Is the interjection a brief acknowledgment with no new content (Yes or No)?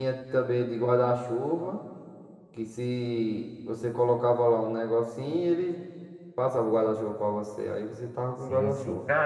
No